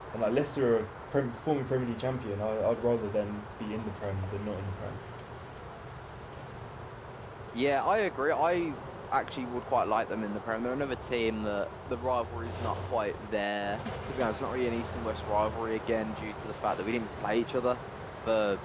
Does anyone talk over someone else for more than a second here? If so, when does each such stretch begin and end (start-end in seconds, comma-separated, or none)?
none